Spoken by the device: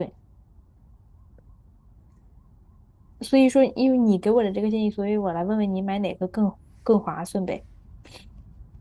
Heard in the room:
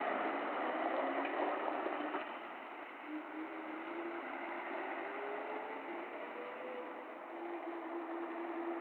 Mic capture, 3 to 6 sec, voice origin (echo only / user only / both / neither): neither